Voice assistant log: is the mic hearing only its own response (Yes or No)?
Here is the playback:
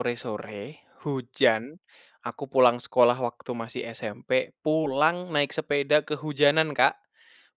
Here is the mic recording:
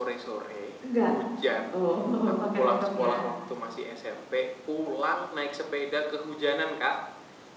No